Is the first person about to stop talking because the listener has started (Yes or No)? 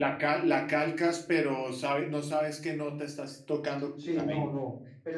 Yes